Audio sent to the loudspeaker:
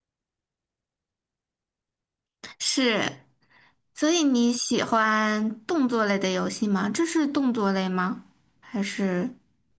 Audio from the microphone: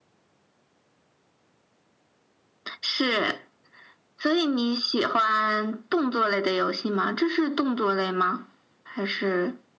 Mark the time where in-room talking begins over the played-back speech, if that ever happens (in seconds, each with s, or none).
none